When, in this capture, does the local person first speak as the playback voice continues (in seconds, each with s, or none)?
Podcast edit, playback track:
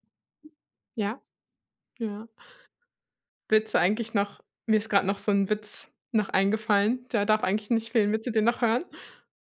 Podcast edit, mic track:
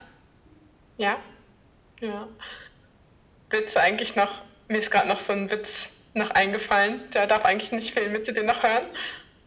none